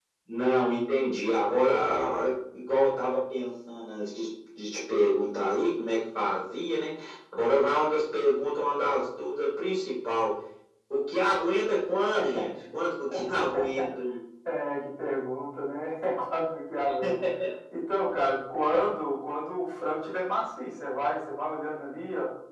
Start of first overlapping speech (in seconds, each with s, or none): none